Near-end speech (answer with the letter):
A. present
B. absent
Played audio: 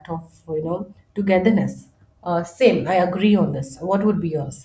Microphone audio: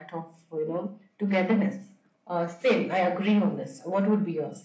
B